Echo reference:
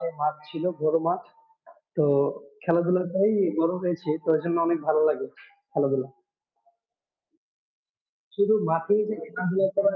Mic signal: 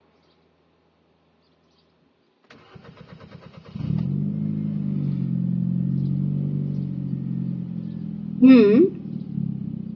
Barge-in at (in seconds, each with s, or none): 8.4 s